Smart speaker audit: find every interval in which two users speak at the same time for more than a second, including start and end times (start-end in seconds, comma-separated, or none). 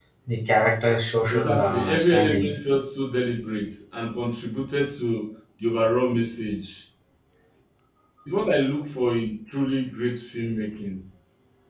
1.3-2.5